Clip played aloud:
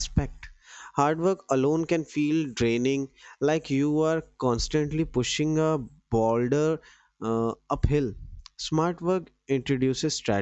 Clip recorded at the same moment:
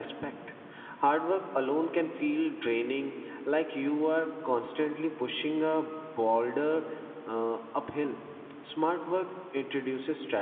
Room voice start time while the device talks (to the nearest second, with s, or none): none